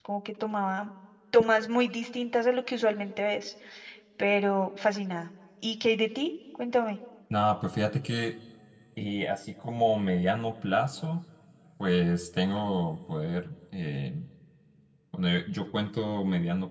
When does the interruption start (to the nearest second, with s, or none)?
none